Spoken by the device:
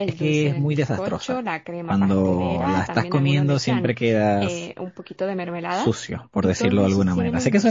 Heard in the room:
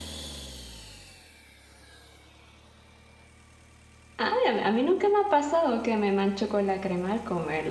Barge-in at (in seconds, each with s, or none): 4.2 s